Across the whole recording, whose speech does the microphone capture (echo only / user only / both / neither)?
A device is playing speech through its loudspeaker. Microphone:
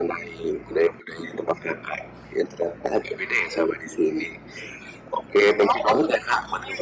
echo only